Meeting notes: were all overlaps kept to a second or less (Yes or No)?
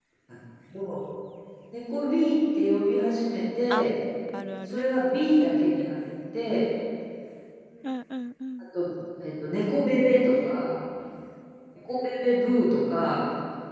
Yes